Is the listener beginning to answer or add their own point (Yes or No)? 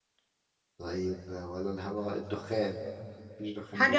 Yes